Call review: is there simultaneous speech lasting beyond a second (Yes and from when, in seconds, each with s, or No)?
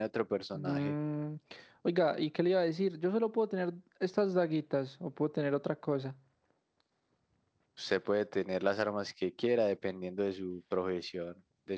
No